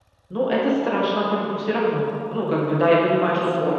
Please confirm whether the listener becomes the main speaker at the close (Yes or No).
No